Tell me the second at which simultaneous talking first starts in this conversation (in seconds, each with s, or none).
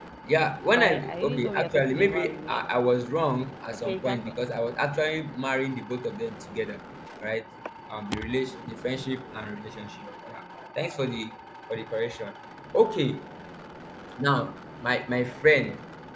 0.7 s